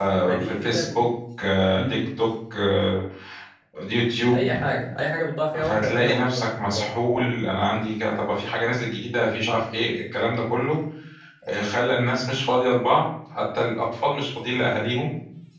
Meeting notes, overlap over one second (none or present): present